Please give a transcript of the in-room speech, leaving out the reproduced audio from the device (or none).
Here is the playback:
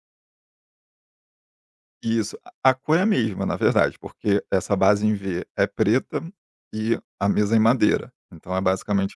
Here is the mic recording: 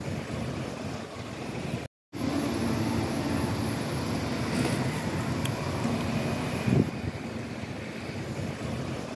none